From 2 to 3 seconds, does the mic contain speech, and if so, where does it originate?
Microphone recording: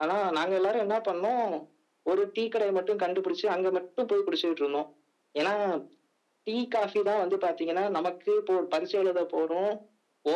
echo only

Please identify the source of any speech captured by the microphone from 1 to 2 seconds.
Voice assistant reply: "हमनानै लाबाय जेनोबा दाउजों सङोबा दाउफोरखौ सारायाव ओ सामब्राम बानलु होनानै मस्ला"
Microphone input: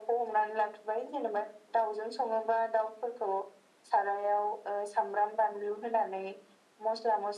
echo only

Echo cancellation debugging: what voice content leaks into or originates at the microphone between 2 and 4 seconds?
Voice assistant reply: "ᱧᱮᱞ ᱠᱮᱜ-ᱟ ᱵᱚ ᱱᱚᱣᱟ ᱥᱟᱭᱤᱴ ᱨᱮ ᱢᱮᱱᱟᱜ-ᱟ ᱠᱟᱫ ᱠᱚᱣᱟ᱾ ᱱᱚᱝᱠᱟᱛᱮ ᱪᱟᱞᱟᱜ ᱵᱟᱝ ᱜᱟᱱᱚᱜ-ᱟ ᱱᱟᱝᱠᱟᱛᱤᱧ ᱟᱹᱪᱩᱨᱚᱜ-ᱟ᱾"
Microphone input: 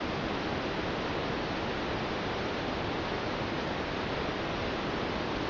neither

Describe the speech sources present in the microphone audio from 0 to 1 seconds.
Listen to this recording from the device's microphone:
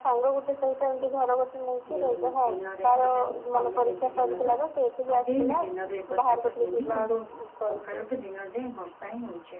echo only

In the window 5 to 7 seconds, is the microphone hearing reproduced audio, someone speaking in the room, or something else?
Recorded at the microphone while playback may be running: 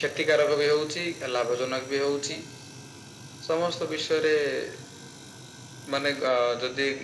echo only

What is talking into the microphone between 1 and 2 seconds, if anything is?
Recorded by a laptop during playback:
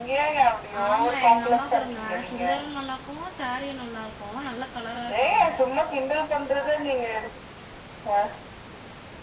both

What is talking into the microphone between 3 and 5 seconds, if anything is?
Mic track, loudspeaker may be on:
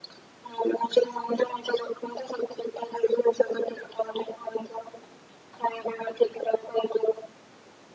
echo only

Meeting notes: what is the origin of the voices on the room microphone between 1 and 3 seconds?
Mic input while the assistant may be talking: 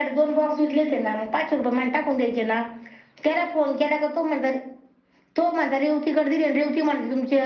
echo only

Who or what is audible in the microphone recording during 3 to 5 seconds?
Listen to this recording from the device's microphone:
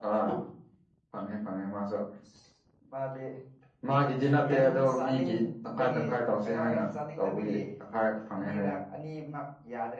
echo only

